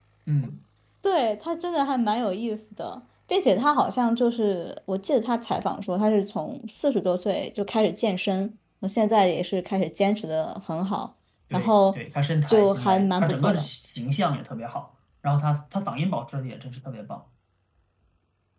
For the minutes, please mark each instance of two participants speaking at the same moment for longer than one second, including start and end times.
12.5-13.7

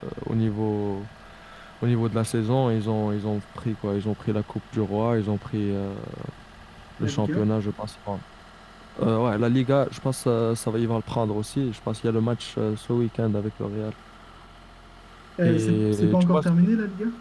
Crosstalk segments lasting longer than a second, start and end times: 15.4-16.7

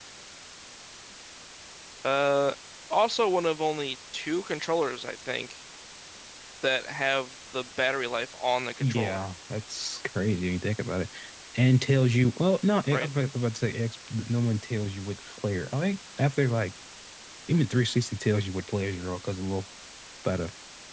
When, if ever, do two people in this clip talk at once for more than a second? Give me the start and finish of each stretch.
none

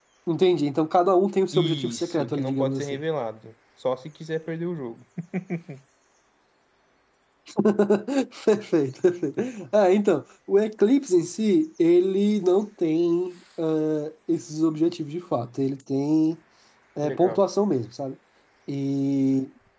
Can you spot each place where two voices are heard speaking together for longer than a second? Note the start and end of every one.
1.5-3.0

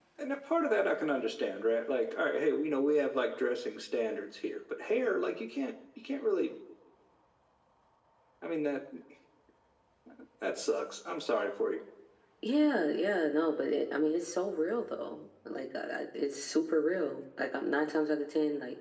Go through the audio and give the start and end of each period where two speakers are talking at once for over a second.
none

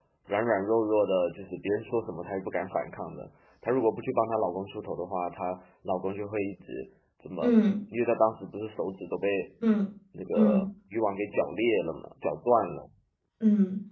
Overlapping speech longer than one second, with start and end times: none

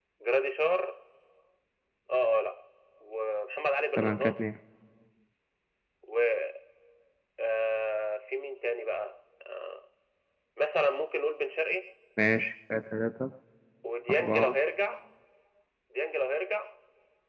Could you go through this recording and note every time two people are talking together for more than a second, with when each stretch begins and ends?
none

